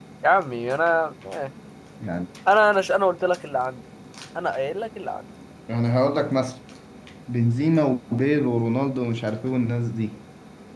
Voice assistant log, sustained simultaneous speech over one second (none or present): none